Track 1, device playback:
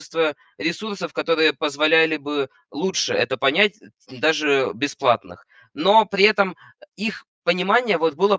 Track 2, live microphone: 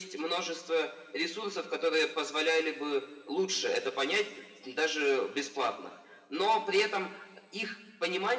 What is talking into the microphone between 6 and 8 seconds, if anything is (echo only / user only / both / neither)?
echo only